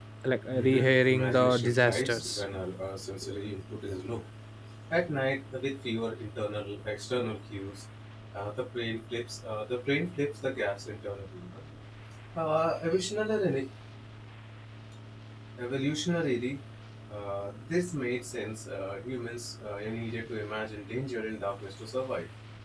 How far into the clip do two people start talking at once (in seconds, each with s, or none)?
0.5 s